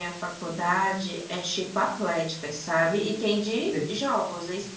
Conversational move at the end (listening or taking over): listening